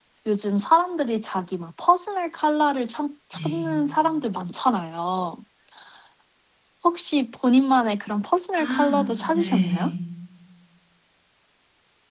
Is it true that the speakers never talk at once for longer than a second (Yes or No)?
No